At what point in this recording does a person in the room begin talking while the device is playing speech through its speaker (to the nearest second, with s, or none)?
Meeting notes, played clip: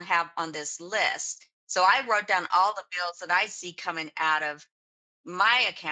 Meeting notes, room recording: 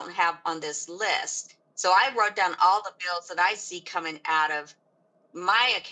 none